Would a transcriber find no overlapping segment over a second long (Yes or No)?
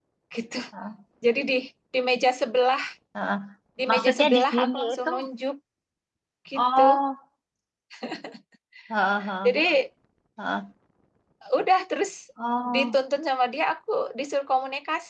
No